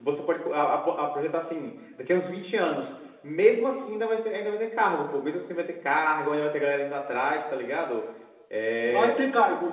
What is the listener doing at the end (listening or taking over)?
taking over